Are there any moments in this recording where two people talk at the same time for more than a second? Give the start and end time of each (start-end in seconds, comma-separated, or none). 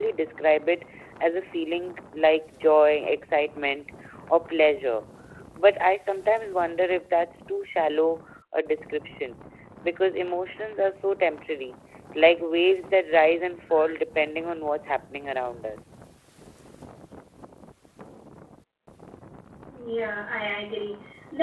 none